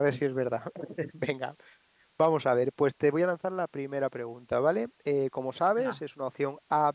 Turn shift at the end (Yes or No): No